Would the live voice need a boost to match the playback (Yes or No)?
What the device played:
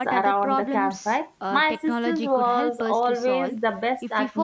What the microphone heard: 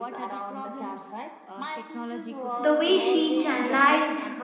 No